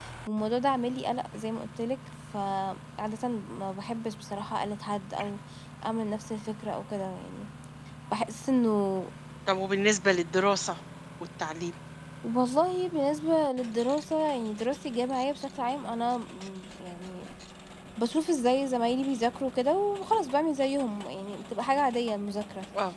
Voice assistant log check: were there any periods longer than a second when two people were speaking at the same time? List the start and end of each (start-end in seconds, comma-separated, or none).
none